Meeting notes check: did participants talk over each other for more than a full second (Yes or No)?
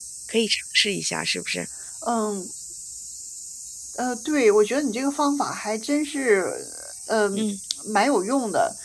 No